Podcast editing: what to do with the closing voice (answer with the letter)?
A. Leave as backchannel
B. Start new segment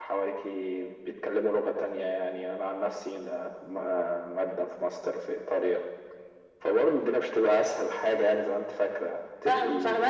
B